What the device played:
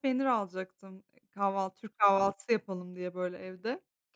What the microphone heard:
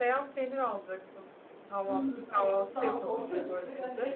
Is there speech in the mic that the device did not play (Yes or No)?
Yes